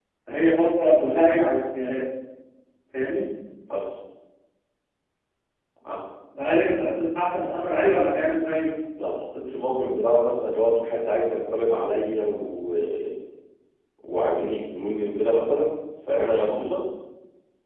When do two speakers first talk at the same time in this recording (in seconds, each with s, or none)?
none